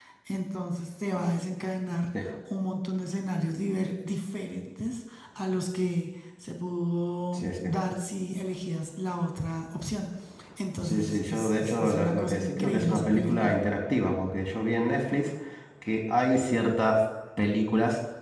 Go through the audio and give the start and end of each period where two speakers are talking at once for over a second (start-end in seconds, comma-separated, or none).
10.8-13.6